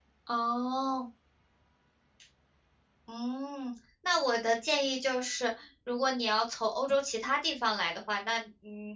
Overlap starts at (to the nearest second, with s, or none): none